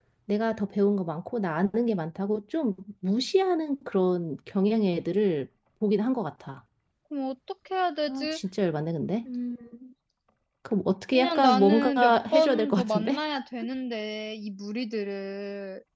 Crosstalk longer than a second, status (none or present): present